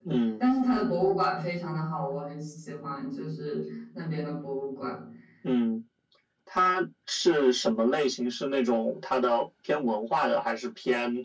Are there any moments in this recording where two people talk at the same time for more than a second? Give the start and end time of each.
none

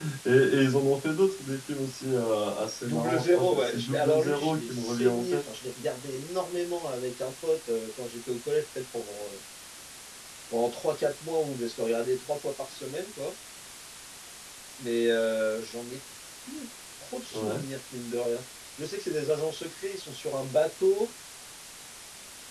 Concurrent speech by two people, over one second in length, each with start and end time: 2.9-5.4

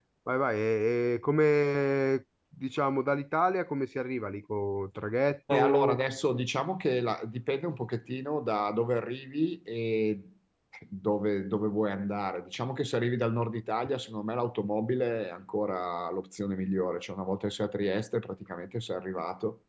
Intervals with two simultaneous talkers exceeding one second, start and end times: none

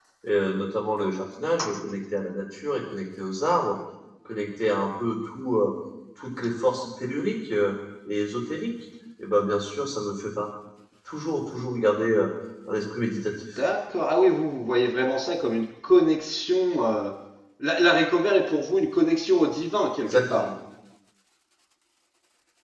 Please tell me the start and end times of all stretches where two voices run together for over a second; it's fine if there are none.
none

